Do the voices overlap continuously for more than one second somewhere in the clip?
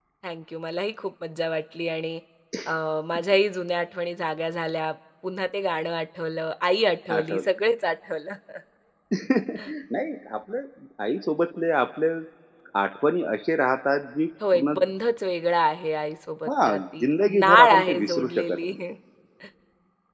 Yes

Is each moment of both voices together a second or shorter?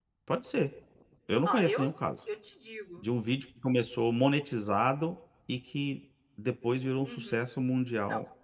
Yes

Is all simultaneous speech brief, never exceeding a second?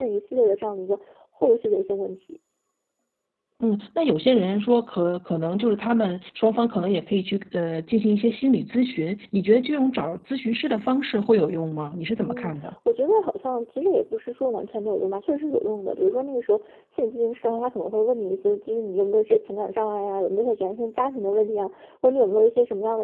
Yes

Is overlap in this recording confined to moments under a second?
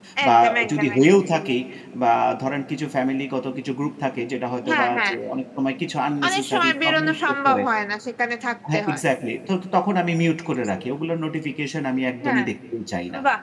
No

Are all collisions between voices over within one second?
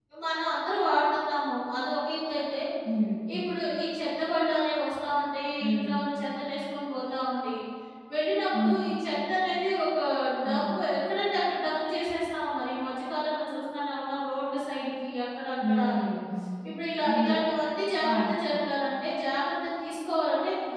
Yes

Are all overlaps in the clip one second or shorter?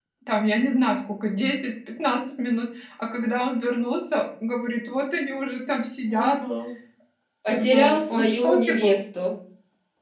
No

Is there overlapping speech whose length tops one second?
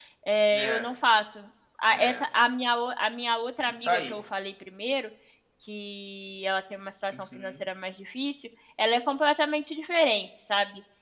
No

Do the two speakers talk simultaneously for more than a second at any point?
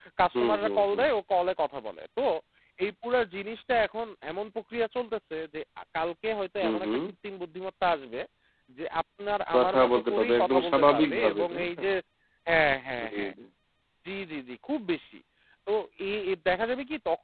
Yes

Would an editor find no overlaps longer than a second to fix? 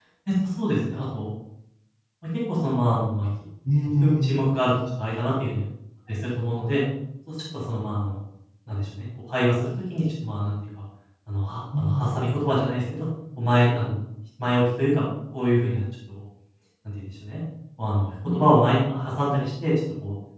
Yes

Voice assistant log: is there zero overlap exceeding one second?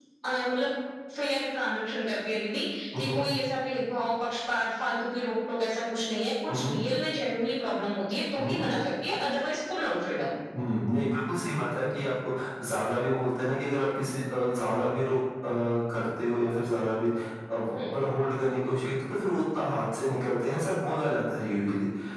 Yes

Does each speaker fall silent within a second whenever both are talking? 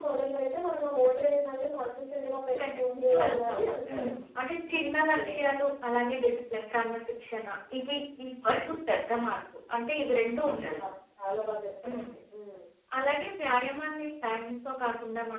No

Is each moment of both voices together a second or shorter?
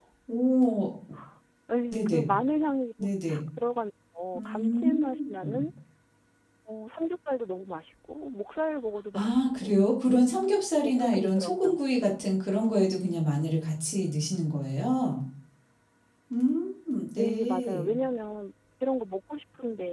No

